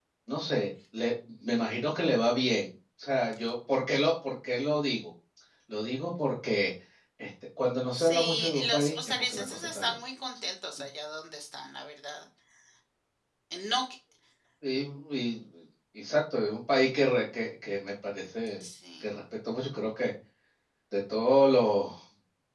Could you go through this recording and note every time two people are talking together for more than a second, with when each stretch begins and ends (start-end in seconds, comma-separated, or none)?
7.9-9.9